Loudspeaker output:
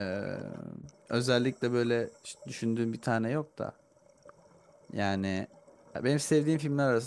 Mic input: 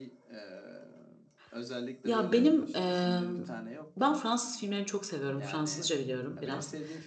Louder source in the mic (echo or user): user